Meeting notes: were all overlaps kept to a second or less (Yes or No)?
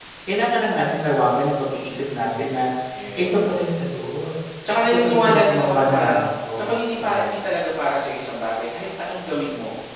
No